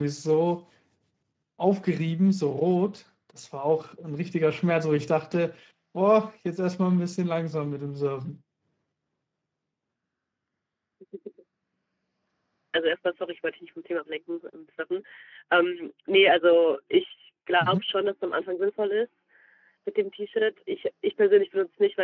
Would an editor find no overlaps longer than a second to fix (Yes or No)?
Yes